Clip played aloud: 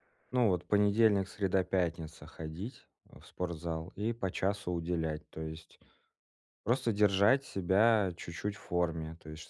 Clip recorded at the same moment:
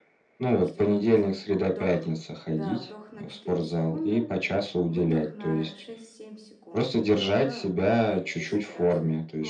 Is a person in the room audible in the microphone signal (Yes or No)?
Yes